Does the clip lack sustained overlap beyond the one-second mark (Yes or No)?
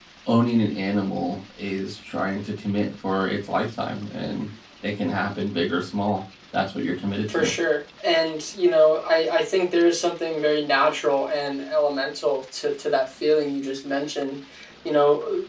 Yes